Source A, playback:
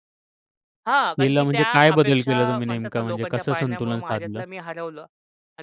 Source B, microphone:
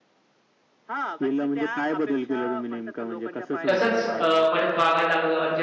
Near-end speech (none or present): present